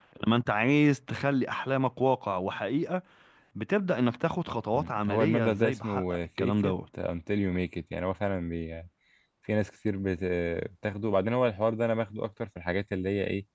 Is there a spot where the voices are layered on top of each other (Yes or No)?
Yes